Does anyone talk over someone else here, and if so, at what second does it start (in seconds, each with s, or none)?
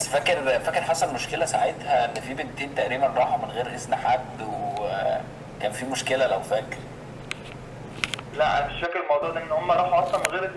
none